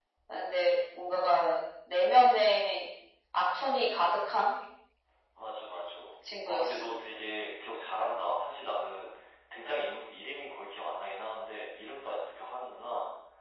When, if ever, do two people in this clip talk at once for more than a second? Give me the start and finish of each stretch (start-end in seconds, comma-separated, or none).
none